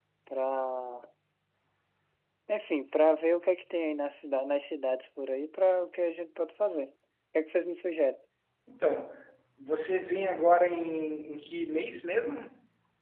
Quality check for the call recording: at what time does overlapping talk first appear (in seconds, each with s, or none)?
none